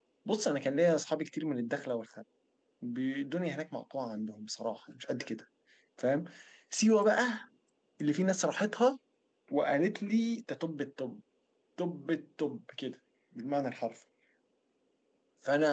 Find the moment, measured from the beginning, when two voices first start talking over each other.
none

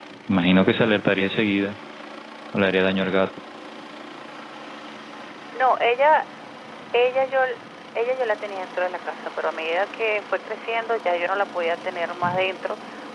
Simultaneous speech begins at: none

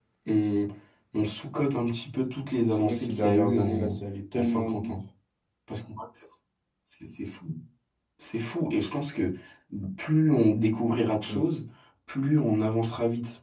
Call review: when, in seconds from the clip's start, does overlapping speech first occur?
3 s

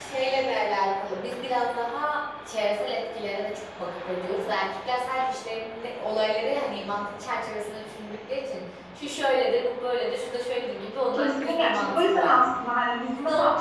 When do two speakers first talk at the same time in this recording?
11 s

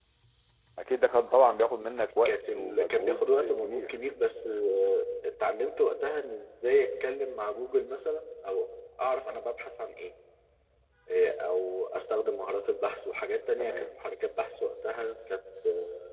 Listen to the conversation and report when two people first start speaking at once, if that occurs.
2 s

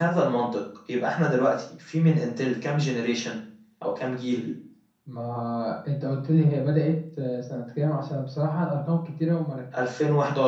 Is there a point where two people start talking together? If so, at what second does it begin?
none

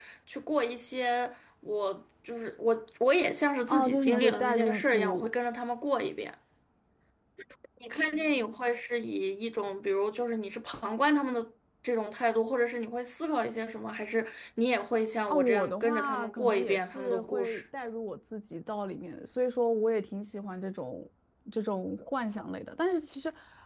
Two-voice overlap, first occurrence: 4 s

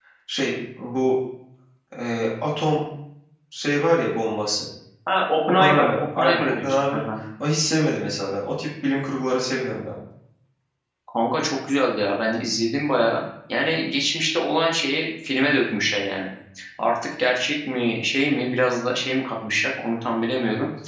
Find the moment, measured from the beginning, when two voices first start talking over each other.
5 s

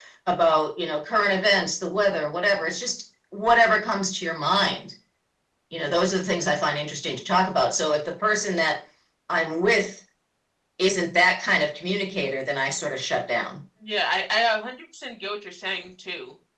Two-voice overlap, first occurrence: none

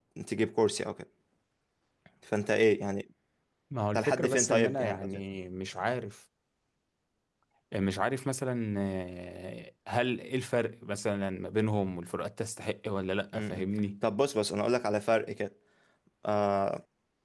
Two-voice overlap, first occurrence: 4 s

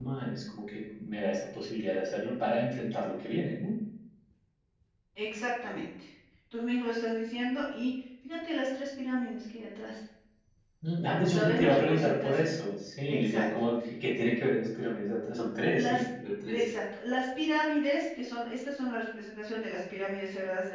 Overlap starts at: 11 s

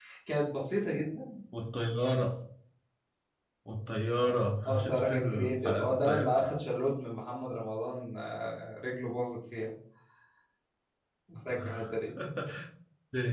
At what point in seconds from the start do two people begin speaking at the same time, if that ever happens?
4 s

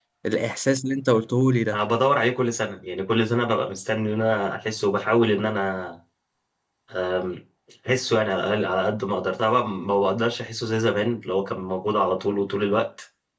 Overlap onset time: none

